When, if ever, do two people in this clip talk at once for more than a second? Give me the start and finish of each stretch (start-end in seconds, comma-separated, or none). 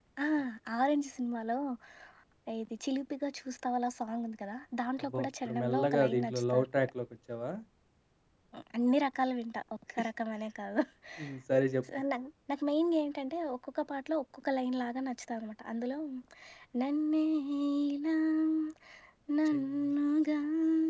5.1-6.7